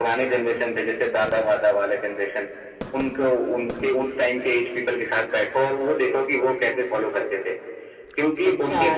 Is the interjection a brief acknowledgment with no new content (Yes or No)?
No